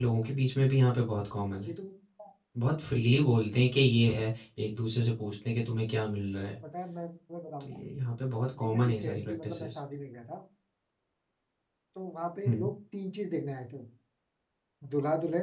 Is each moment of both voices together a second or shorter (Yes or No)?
No